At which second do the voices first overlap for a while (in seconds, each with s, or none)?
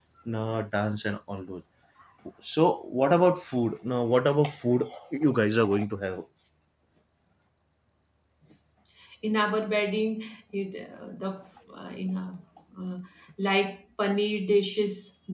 none